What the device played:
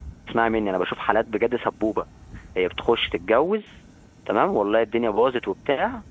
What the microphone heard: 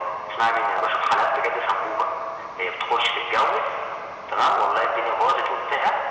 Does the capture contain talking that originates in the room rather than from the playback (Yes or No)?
No